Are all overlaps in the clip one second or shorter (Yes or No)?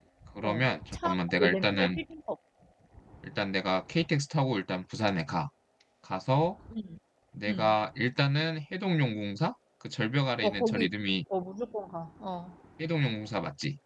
No